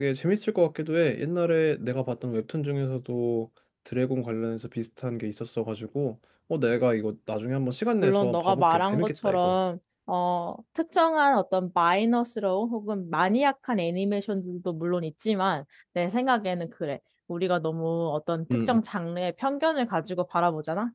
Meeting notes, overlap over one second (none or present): present